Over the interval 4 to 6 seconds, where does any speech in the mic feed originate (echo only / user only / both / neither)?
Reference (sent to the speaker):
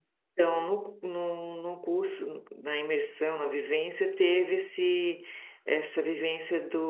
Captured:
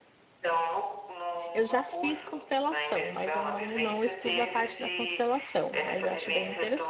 both